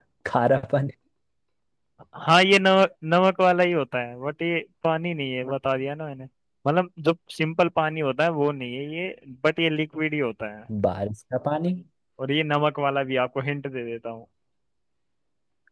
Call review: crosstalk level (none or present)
none